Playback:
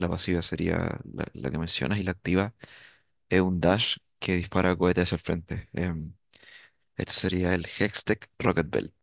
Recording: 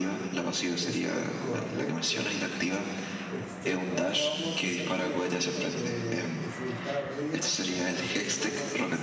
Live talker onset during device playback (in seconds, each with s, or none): 0.8 s